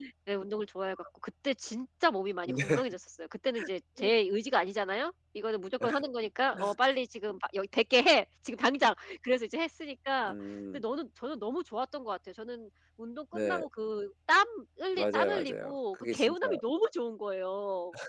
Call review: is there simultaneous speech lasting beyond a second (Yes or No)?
Yes